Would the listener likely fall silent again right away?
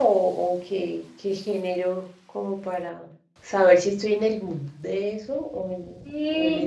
No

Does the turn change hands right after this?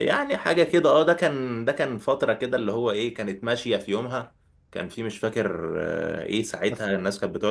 No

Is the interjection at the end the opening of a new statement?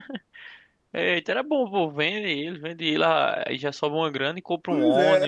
Yes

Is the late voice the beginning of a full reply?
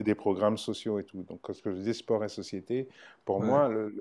No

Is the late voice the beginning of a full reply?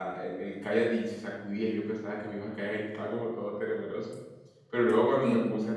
No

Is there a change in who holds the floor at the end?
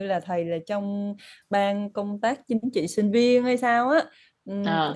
No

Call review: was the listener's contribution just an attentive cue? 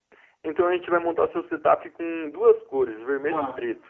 No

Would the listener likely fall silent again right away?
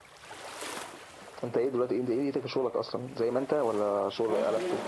No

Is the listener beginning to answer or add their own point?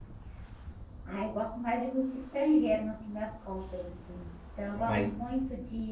No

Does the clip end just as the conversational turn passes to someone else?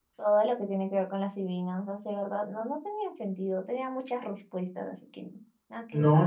Yes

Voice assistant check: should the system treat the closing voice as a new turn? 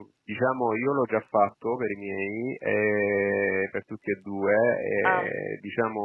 No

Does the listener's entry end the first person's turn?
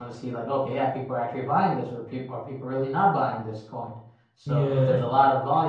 No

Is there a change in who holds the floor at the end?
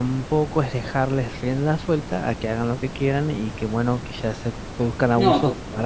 Yes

